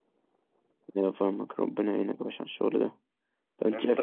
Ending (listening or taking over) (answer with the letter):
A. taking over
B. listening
B